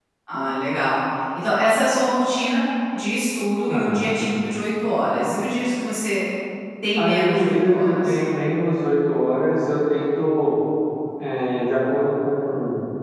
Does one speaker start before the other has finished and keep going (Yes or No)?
Yes